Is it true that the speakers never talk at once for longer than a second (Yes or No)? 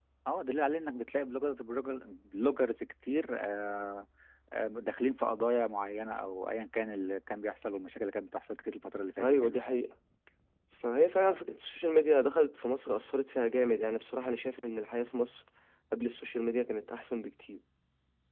Yes